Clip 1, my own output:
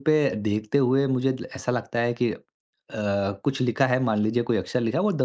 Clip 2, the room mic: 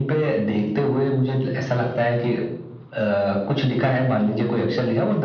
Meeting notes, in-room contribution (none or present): none